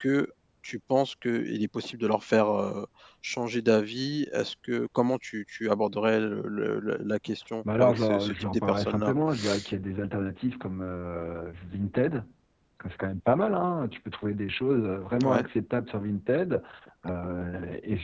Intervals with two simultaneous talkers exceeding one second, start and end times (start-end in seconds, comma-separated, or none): 7.8-9.1